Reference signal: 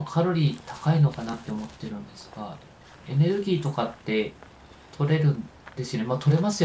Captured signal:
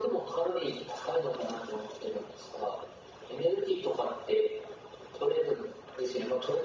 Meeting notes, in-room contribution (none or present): none